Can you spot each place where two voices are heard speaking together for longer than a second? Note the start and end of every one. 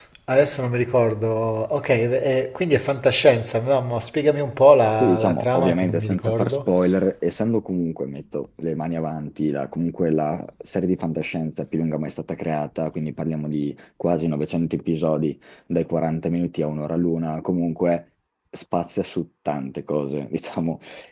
5.0-6.7

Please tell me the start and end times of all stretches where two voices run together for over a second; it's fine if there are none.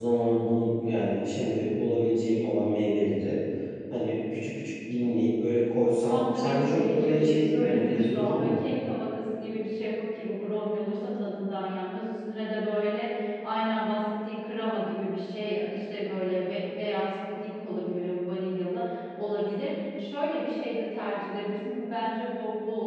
6.1-8.5

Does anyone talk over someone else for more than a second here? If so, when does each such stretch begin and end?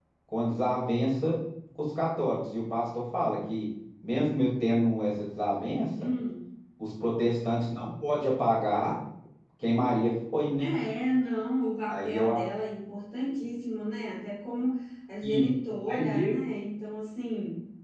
none

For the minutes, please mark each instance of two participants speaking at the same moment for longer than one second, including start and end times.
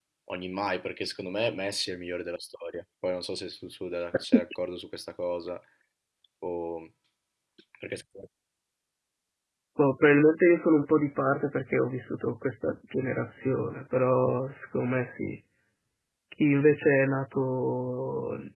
none

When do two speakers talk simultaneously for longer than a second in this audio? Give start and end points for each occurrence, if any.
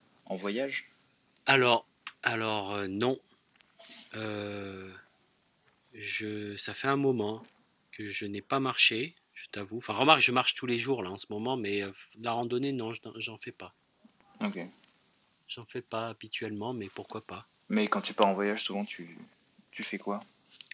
none

